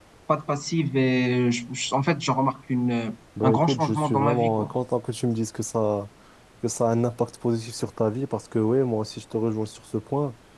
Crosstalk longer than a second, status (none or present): present